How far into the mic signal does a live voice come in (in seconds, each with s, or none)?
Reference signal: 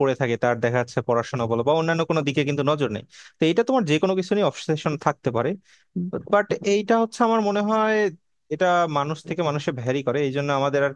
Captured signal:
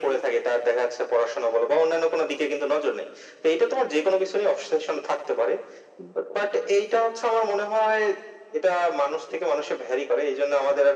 none